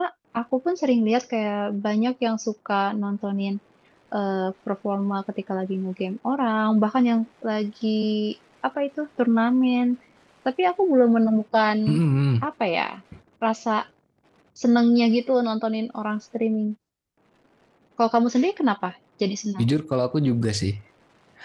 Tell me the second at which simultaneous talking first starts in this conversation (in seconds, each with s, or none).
none